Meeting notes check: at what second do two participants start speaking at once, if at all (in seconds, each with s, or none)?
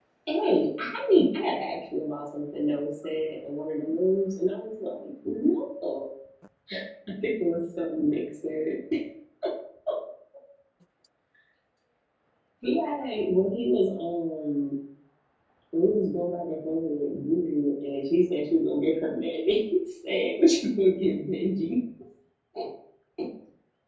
none